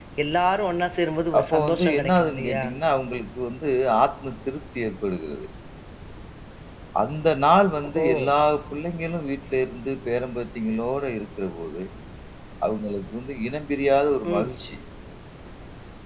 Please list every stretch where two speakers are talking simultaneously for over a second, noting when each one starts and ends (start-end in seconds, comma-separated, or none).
1.4-2.6